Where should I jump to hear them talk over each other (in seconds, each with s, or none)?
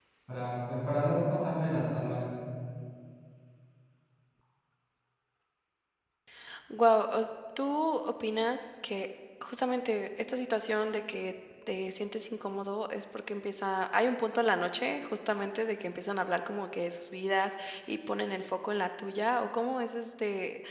none